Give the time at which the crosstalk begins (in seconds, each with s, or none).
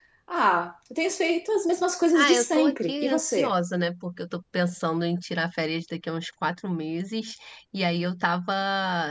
2.1 s